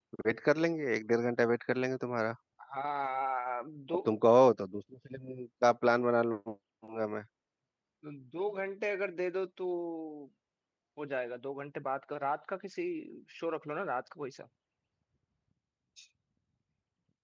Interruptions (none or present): none